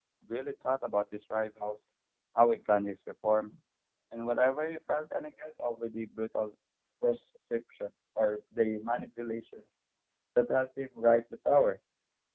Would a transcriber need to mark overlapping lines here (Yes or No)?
No